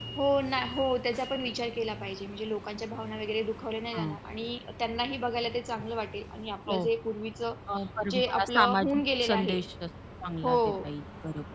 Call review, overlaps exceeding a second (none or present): present